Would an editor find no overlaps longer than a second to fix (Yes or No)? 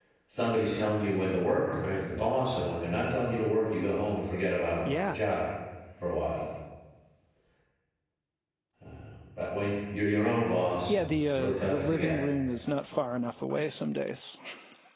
No